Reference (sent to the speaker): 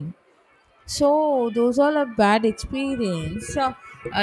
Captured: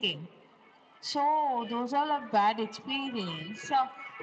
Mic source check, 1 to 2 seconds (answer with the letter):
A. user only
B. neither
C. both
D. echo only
D